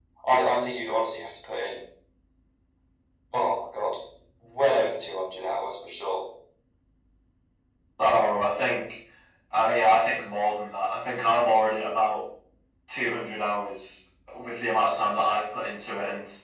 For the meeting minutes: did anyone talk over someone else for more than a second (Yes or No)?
No